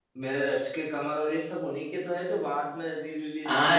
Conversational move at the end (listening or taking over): taking over